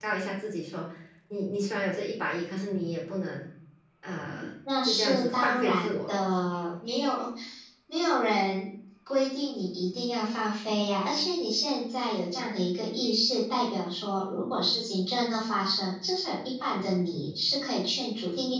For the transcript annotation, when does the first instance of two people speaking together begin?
5 s

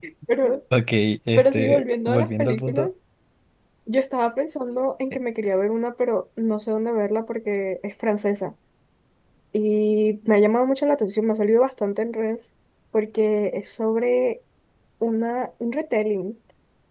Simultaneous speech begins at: 1 s

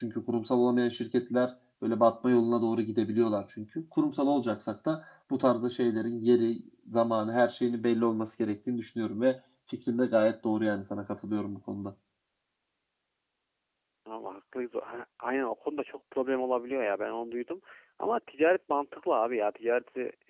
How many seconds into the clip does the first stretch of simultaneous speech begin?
none

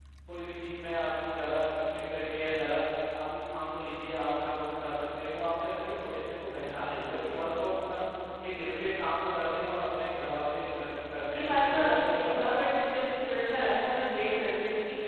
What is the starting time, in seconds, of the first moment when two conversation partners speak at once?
11 s

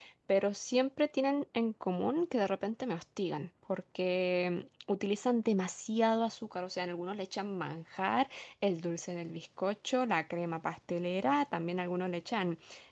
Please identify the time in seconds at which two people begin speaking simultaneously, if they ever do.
none

